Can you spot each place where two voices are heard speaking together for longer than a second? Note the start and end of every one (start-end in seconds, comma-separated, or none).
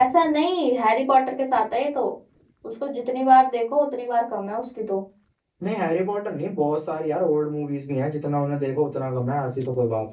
none